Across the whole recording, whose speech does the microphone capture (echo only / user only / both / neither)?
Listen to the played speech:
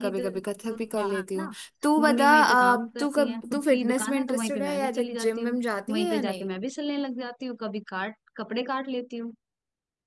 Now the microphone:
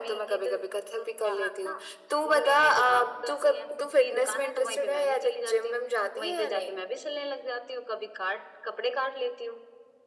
echo only